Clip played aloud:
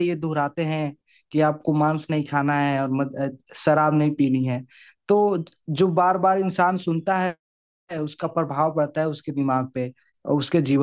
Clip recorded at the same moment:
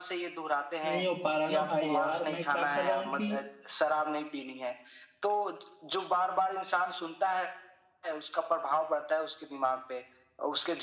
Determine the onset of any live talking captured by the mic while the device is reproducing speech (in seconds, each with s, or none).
0.8 s